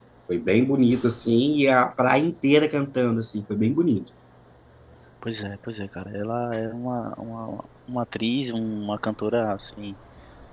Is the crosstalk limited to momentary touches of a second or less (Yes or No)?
Yes